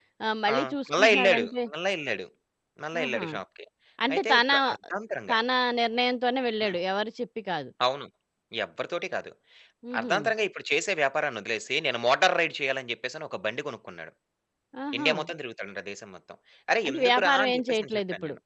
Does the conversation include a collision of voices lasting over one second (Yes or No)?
Yes